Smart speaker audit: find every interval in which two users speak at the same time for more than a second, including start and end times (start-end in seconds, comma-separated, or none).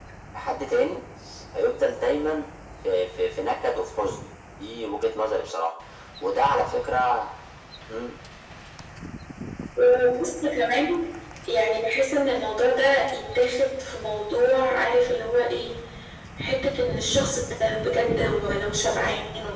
none